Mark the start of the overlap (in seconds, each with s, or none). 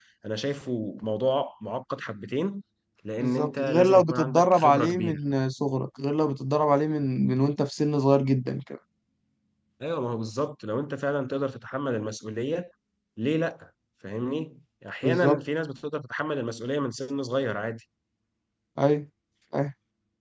3.2 s